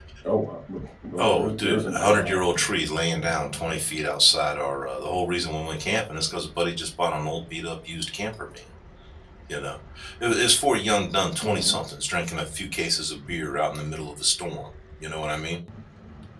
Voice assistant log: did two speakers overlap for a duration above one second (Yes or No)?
Yes